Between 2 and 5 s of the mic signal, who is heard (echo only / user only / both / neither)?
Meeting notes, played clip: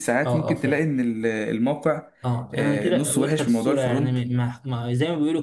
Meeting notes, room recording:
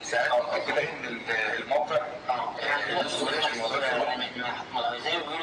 echo only